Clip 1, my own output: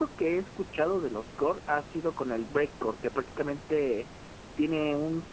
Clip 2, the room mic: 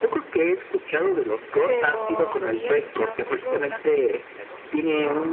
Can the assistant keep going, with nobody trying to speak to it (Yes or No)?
No